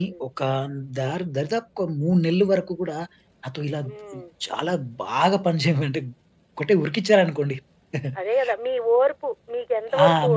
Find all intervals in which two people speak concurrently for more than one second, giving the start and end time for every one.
none

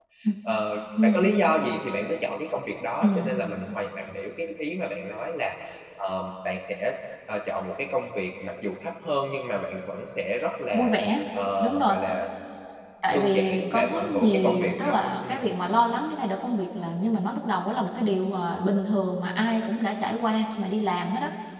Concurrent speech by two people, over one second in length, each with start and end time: 13.1-15.5

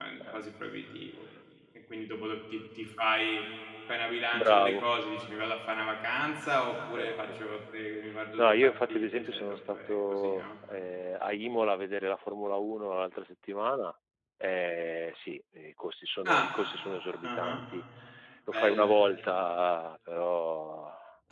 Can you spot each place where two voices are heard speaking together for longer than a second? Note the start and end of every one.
8.4-10.4

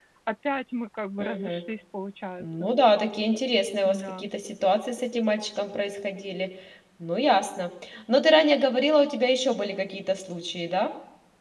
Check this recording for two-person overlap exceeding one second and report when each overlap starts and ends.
none

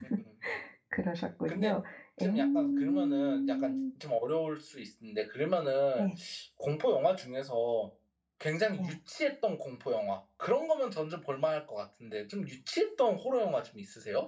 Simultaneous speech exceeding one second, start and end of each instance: 2.2-3.8

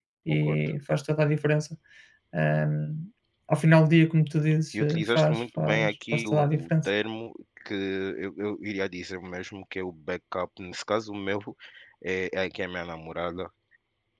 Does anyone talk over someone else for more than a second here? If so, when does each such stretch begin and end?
4.8-6.9

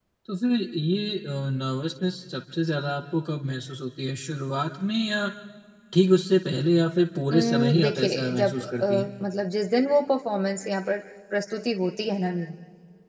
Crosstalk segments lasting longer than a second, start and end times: 7.3-8.8

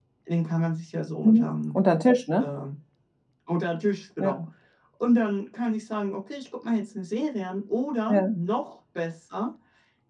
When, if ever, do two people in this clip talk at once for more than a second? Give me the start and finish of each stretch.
none

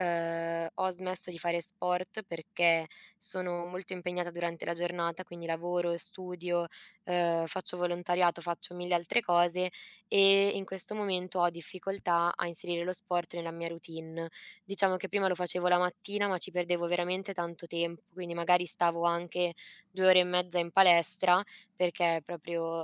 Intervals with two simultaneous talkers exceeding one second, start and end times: none

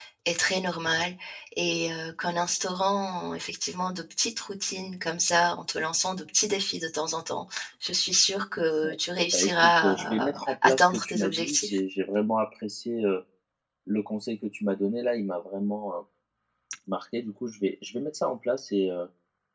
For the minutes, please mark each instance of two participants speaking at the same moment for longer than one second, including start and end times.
8.8-11.8

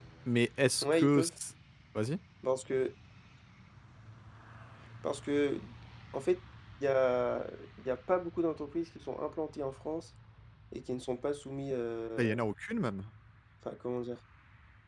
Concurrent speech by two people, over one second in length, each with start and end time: none

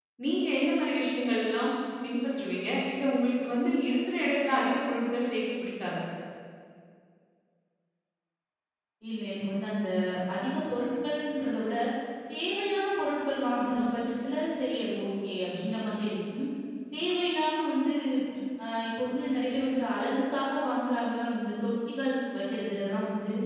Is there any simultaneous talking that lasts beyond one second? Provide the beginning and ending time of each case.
none

